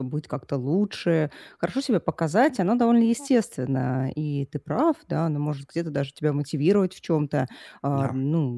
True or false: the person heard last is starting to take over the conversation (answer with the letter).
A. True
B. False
B